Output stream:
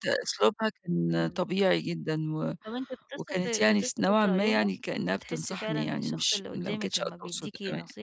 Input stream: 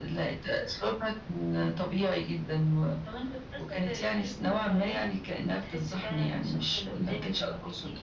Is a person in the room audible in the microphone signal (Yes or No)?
No